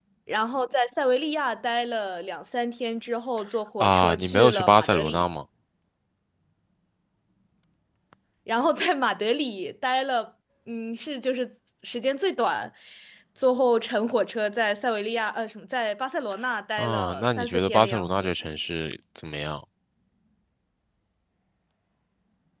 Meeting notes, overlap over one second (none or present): present